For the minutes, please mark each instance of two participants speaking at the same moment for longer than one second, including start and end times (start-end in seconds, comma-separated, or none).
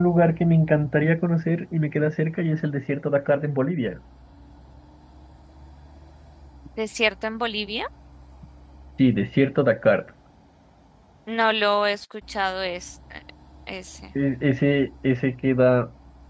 none